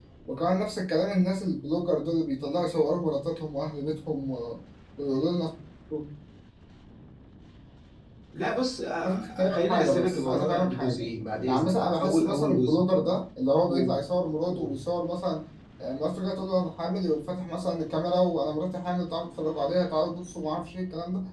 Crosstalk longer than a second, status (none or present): present